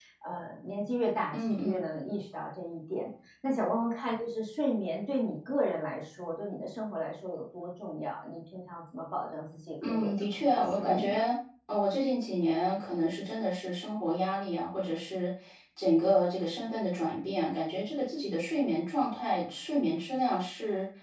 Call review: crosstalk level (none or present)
present